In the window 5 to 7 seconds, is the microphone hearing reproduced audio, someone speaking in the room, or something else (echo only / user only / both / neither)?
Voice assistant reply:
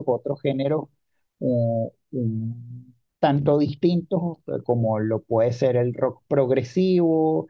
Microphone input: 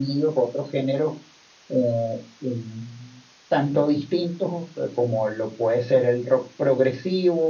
echo only